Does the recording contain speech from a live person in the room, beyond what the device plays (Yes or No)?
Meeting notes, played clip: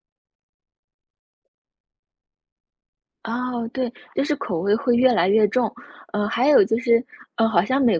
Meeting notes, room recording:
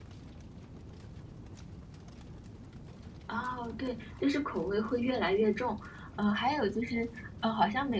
No